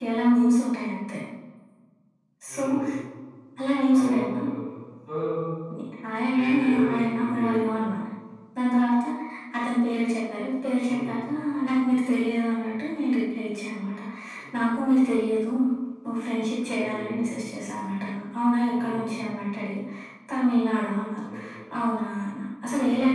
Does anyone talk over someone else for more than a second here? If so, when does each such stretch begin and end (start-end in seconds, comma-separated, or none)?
6.3-7.7